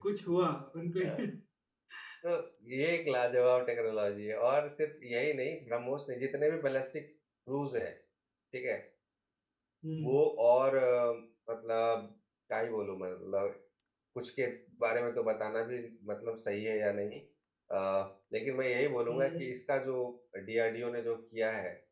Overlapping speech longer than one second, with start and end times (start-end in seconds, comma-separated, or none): none